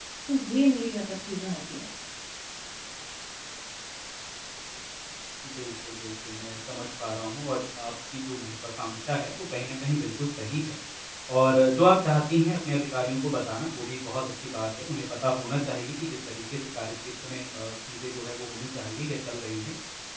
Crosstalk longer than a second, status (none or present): none